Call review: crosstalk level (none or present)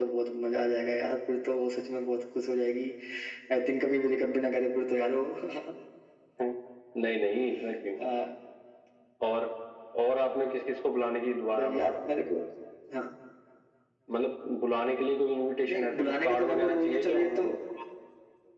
present